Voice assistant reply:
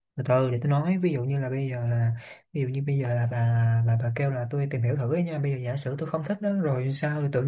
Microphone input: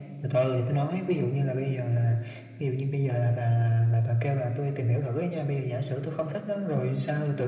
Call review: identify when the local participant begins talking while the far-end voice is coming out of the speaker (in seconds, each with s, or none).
none